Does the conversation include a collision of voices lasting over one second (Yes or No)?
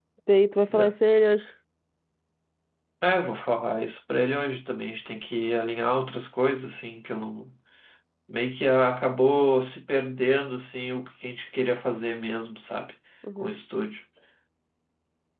No